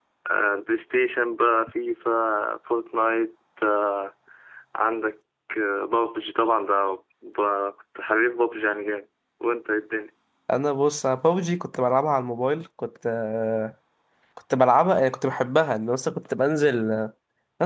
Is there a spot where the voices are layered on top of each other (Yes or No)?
No